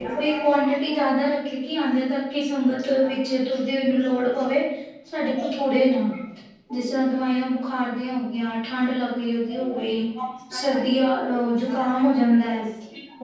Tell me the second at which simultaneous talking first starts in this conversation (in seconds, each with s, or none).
none